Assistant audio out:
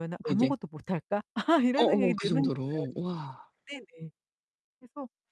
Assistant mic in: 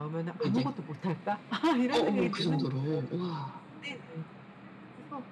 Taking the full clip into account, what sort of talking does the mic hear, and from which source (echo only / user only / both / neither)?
echo only